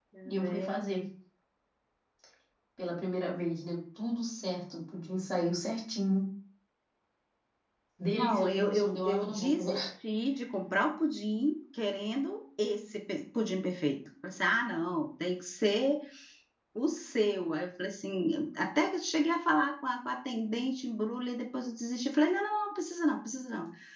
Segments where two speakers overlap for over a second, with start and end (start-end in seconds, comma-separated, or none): 8.2-9.6